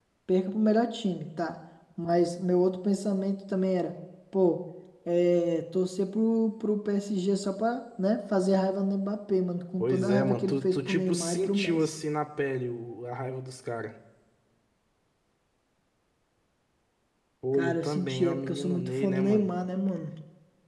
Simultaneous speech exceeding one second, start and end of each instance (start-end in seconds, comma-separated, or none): 9.8-11.8, 17.5-19.4